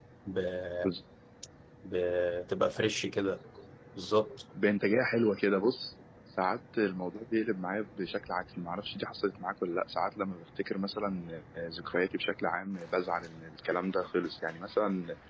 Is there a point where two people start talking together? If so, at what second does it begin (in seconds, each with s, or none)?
none